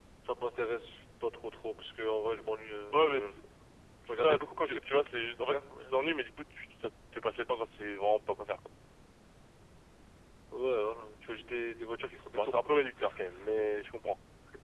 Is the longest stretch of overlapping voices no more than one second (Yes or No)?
No